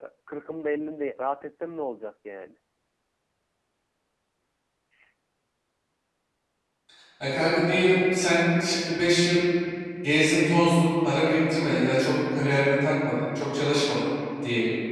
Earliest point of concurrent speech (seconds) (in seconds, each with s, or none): none